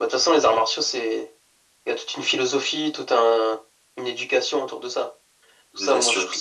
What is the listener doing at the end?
taking over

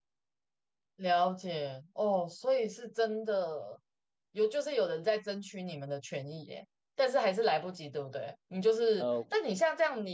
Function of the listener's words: listening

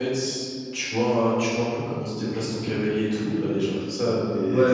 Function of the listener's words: taking over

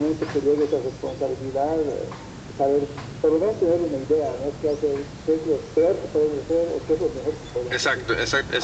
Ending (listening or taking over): taking over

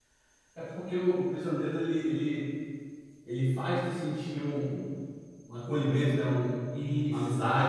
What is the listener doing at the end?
taking over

